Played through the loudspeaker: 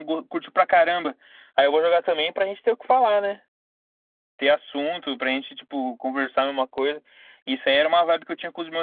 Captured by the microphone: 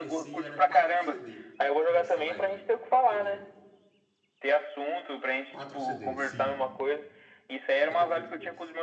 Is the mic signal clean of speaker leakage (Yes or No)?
No